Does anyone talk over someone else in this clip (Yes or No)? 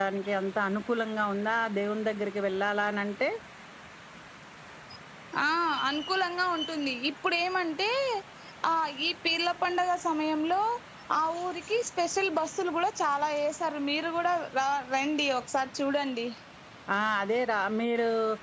No